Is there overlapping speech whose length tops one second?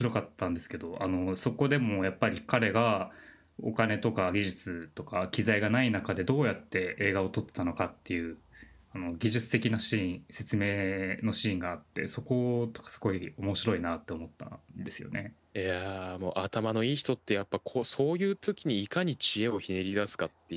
No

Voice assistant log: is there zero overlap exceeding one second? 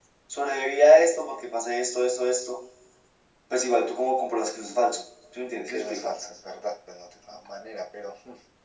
Yes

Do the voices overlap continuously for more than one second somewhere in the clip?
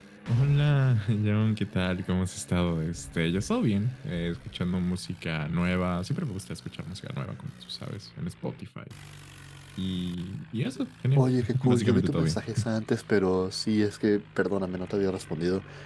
Yes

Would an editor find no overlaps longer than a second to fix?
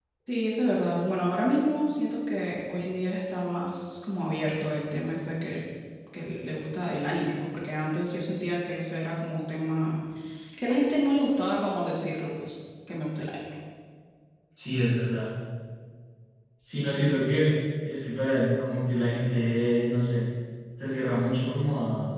Yes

